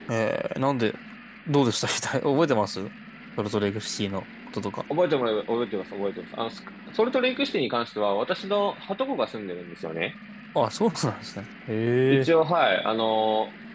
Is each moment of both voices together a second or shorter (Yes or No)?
Yes